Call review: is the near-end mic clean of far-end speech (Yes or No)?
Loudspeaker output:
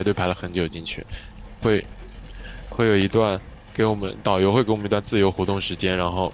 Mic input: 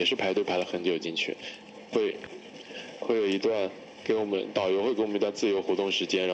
No